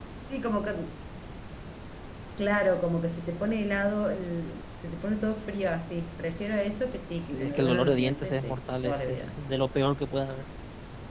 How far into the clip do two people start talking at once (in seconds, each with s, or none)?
7.3 s